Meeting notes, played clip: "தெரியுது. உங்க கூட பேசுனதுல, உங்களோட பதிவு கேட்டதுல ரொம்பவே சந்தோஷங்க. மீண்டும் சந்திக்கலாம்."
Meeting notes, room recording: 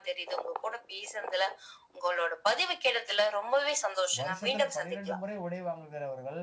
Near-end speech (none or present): present